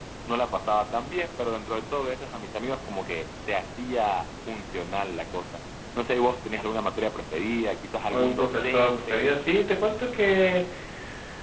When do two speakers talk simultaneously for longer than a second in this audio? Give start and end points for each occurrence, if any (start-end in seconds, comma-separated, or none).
8.1-9.3